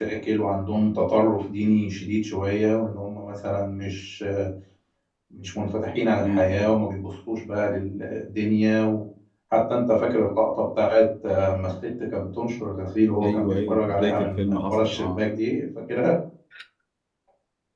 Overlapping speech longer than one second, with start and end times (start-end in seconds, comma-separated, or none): 13.2-15.2